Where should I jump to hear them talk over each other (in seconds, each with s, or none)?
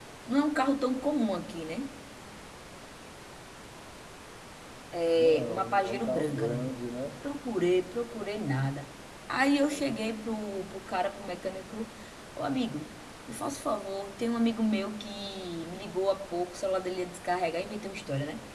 5.1 s